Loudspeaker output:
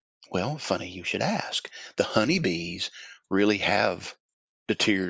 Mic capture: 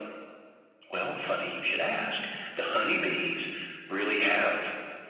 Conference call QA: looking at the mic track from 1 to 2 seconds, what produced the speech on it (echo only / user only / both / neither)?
echo only